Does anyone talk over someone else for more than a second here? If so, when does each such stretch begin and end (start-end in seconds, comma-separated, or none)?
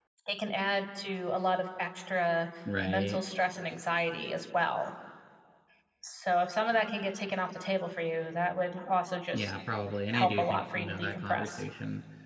10.1-11.5